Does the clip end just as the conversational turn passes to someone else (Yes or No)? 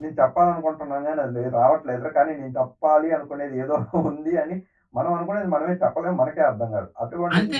Yes